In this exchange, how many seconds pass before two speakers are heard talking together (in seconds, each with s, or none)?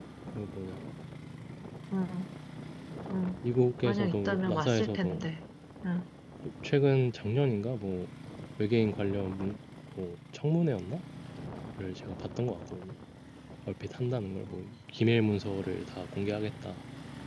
3.8 s